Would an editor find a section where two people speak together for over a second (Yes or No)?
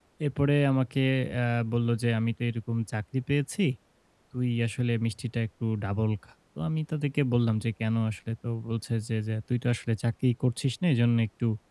No